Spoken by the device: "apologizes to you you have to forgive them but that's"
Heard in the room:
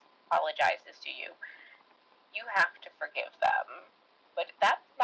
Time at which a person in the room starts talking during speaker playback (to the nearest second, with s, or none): none